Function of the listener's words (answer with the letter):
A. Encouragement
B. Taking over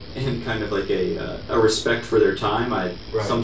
A